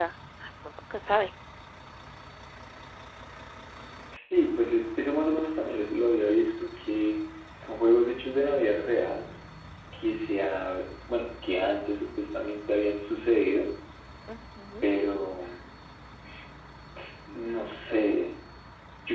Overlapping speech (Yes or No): No